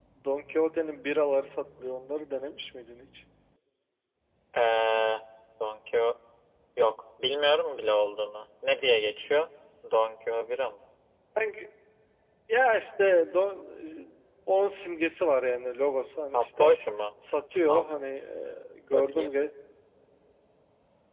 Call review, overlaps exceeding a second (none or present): none